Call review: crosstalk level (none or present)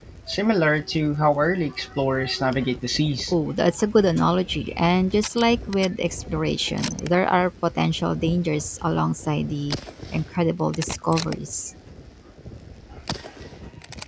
none